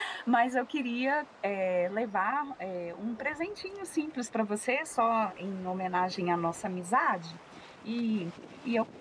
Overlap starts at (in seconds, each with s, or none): none